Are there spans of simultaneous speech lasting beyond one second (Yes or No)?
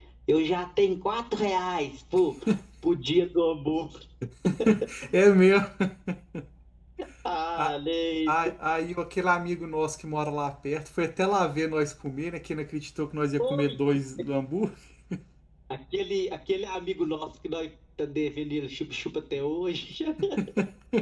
No